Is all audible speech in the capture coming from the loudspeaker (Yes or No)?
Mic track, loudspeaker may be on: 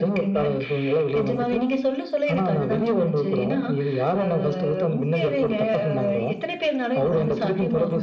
Yes